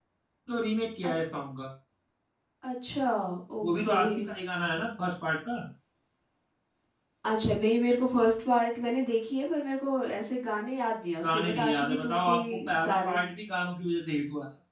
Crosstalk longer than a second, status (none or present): present